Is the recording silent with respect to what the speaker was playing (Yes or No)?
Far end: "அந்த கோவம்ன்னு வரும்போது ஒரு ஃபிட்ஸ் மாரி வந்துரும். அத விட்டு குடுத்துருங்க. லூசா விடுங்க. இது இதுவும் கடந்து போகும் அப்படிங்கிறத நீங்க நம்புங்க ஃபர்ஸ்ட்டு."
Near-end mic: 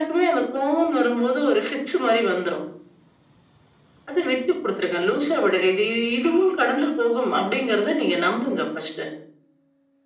No